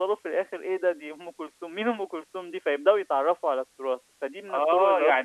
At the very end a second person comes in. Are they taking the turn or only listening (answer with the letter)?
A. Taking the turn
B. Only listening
A